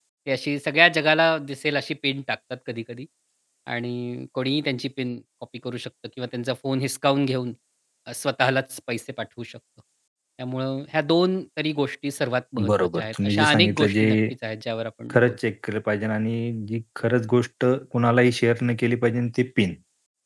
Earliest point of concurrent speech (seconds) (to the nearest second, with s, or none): 13 s